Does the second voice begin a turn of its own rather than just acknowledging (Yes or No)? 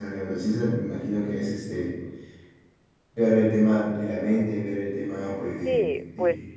Yes